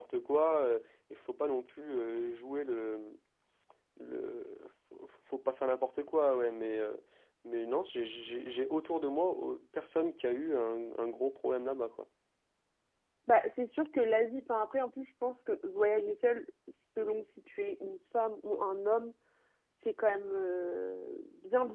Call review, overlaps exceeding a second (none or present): none